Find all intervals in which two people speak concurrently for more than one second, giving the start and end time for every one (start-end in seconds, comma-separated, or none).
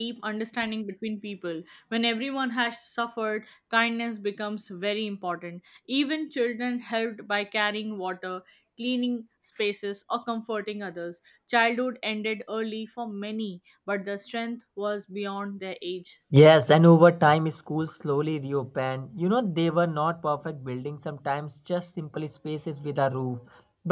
none